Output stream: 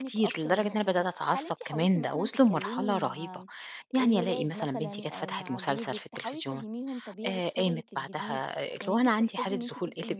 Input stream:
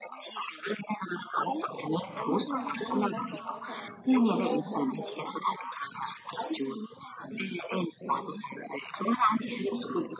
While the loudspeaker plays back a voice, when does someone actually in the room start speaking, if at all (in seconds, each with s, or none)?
2.2 s